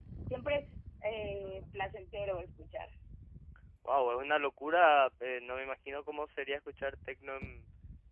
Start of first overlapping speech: none

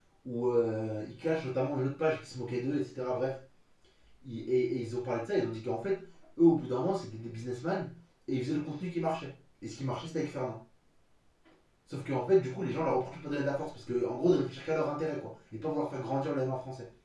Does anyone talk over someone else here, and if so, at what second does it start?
none

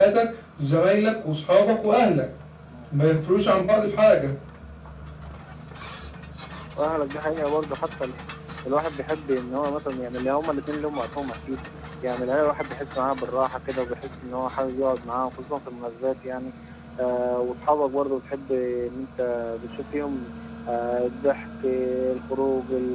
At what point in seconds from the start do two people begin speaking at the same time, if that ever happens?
none

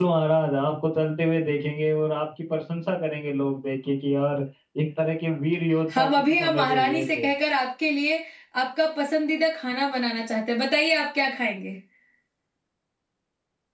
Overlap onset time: 5.9 s

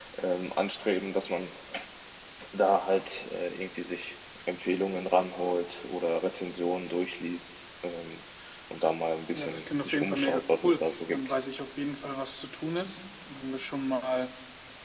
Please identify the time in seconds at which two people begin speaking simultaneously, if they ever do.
9.3 s

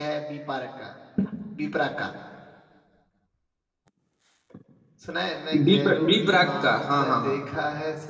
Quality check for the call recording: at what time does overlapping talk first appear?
5.7 s

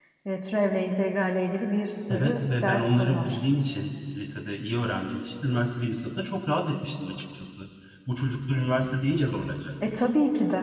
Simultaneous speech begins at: 2.1 s

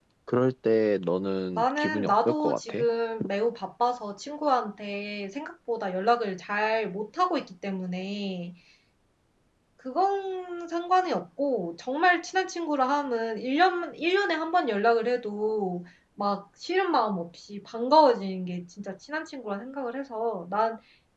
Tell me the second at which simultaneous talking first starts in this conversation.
1.6 s

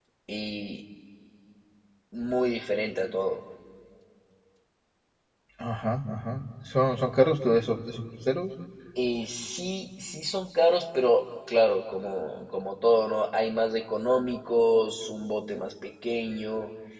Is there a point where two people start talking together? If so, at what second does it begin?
none

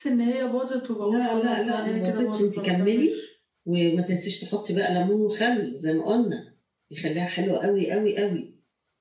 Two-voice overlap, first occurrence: 1.0 s

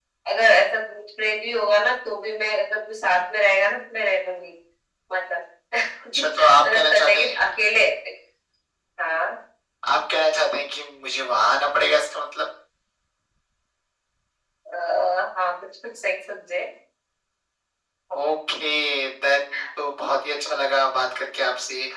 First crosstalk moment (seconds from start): 6.1 s

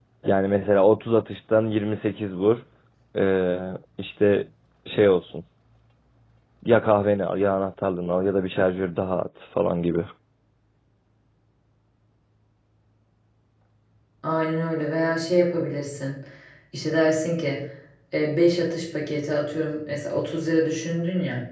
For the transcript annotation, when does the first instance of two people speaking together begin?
none

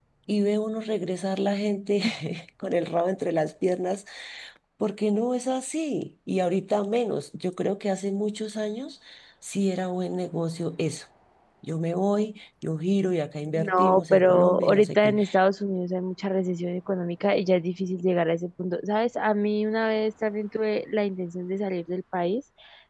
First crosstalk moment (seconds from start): 13.6 s

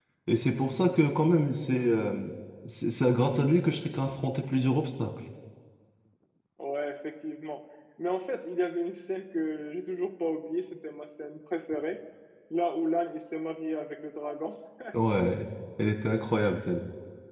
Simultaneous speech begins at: none

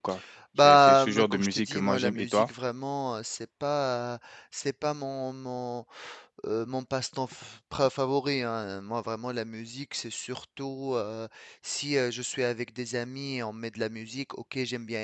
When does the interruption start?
0.6 s

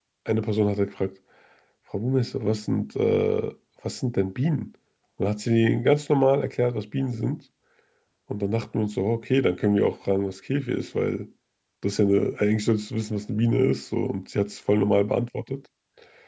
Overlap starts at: none

